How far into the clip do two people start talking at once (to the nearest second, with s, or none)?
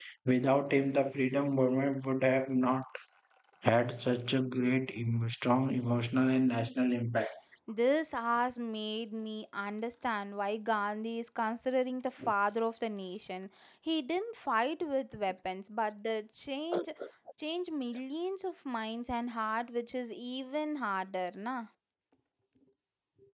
none